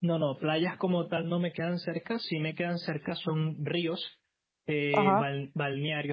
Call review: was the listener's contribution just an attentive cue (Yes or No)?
Yes